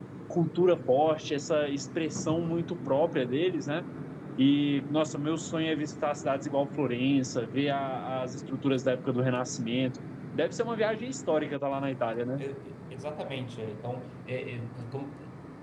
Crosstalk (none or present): none